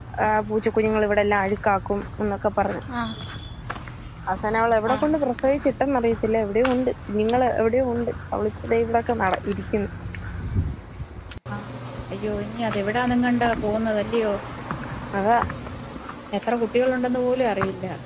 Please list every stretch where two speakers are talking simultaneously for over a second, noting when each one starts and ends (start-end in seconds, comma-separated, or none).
none